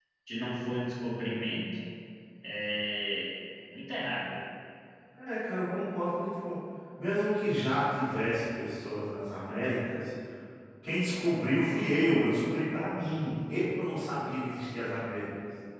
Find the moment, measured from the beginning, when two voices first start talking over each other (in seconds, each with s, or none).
none